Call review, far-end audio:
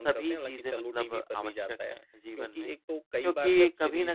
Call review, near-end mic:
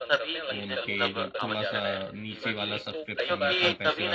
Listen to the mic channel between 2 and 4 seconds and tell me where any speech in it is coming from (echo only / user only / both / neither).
both